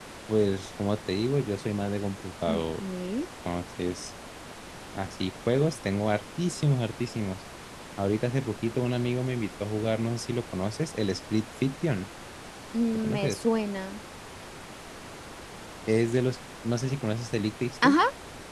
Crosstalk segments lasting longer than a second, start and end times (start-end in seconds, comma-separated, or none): none